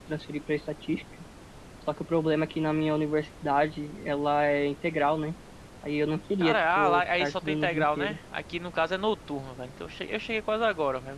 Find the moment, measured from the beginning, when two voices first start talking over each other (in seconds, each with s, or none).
6.4 s